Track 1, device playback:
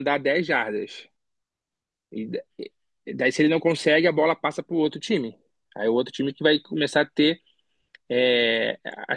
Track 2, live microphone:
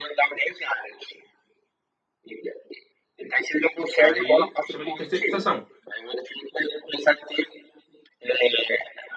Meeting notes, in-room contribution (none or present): present